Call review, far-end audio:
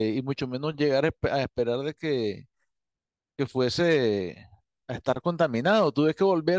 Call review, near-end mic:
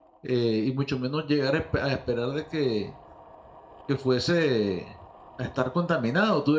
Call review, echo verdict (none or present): present